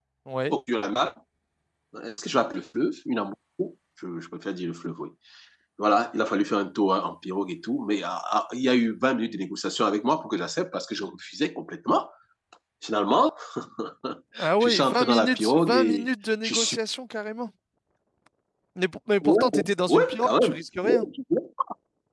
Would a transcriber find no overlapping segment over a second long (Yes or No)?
No